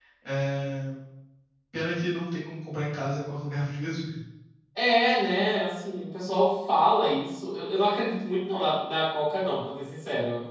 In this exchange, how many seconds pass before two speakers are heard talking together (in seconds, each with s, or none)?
none